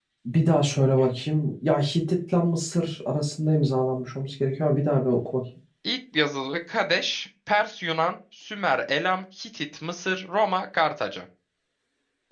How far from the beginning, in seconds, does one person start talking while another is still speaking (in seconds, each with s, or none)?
none